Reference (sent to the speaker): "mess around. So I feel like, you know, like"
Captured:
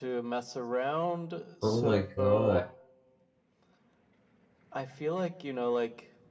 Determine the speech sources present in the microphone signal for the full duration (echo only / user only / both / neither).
both